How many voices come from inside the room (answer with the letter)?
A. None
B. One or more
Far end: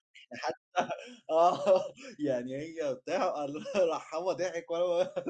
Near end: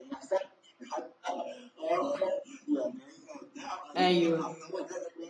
B